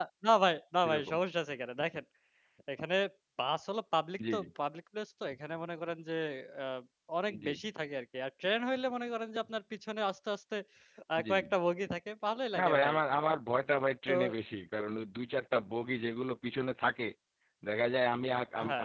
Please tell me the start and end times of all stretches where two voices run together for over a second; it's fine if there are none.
none

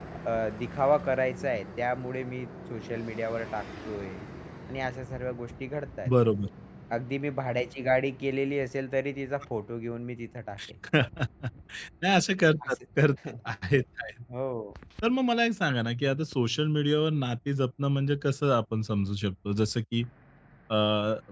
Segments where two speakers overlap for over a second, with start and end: none

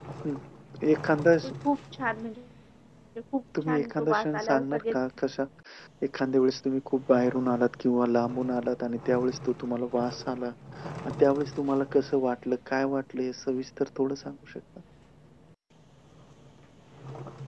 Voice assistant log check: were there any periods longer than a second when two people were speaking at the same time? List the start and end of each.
3.7-5.0

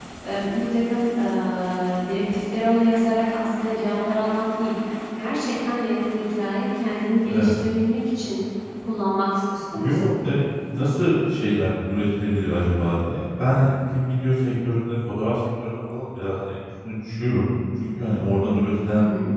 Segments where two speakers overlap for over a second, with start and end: none

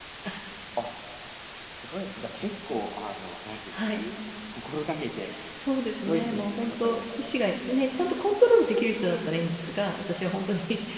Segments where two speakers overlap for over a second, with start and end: 6.0-7.3

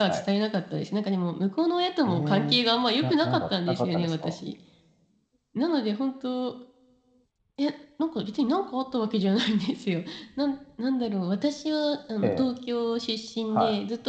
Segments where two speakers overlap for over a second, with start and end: 3.0-4.4

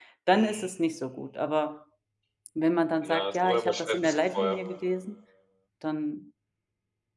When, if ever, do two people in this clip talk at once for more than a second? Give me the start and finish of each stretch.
3.0-4.6

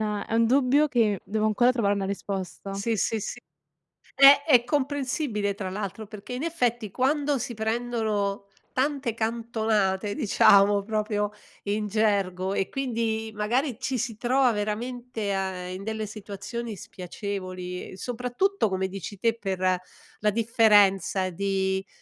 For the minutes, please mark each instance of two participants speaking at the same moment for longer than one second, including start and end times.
none

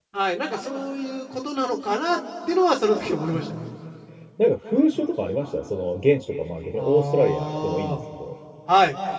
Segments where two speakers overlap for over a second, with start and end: 6.8-8.0

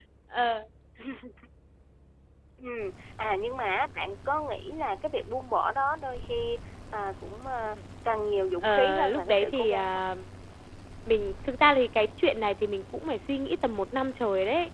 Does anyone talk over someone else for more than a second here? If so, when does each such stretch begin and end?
8.6-10.0

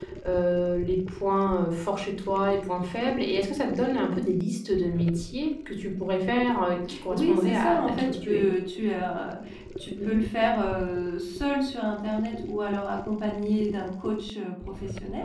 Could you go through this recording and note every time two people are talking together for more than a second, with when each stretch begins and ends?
7.1-8.4

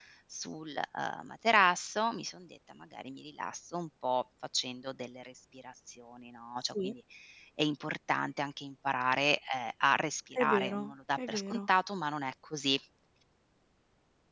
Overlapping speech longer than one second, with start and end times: 10.3-11.6

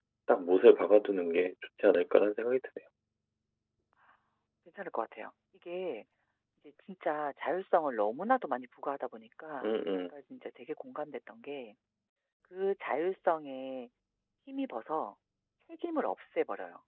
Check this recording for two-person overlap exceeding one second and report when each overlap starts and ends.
none

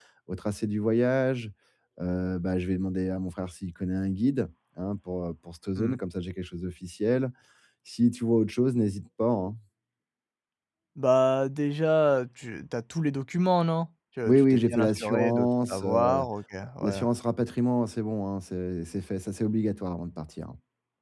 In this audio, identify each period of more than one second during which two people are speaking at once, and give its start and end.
14.2-16.2

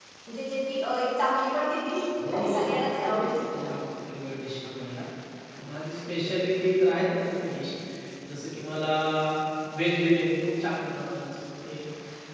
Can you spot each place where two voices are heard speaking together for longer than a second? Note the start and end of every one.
2.3-3.7

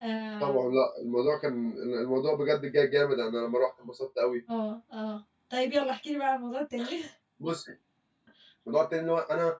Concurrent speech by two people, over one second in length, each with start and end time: none

